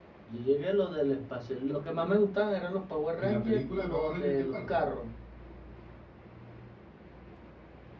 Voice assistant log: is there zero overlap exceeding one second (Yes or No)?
No